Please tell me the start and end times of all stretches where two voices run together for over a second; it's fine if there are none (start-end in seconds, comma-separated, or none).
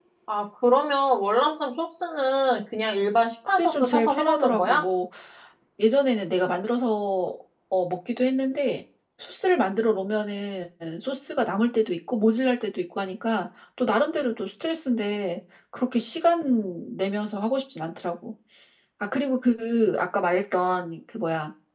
3.6-4.8